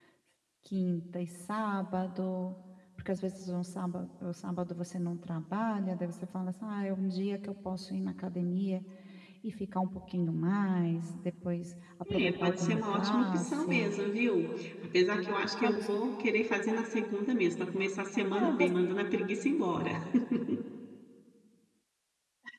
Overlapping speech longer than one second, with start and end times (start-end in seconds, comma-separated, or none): 12.1-13.9